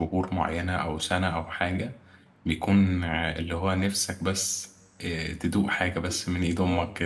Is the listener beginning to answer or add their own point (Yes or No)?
Yes